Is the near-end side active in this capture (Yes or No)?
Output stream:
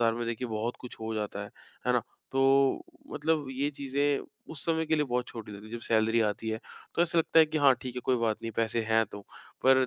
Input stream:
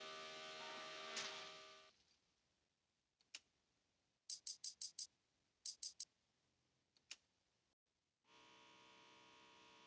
No